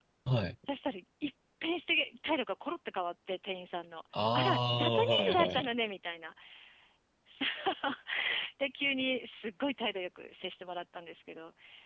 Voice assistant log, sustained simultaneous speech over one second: present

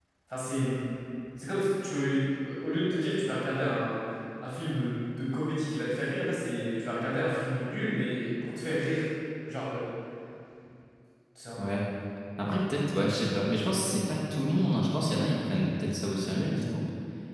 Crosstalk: none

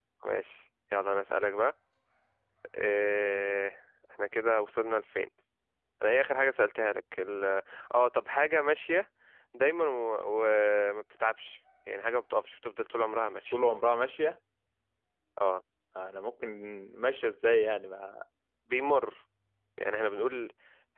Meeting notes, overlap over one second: none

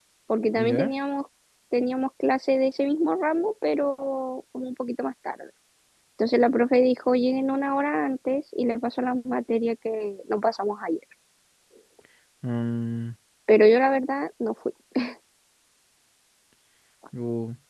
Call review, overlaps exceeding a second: none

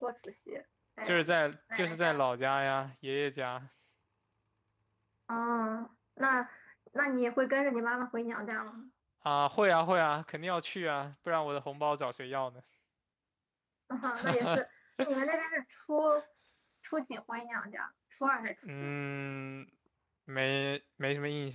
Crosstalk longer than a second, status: none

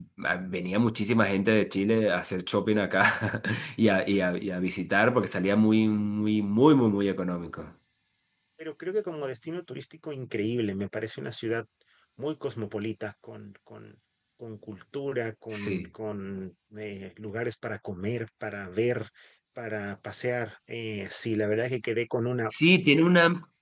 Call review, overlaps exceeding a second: none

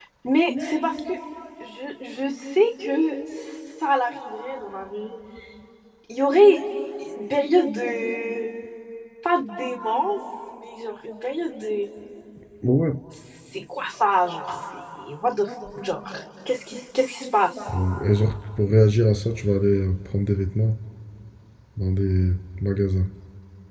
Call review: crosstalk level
none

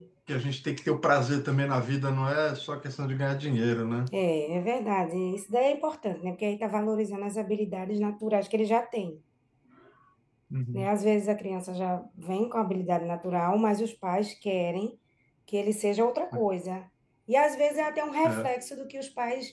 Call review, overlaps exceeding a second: none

